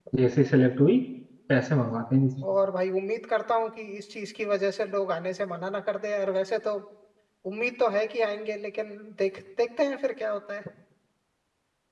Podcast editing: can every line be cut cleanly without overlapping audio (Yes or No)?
Yes